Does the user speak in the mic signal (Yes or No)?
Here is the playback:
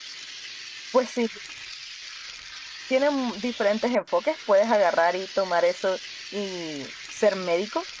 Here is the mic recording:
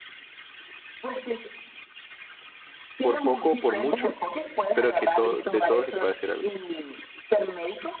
Yes